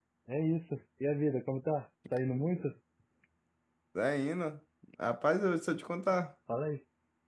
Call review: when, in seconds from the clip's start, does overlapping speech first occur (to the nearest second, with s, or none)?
none